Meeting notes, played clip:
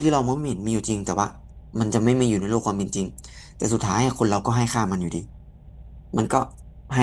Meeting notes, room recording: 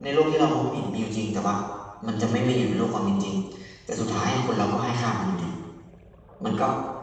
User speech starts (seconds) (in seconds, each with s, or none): none